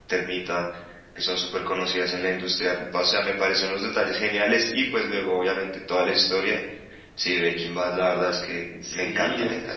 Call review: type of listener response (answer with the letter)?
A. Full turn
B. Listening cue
A